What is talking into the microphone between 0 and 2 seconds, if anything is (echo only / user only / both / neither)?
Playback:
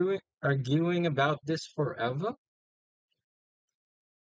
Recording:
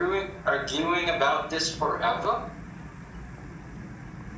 echo only